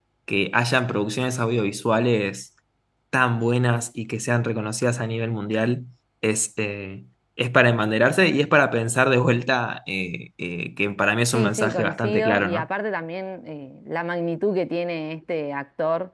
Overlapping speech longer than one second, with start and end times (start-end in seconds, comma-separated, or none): 11.3-12.7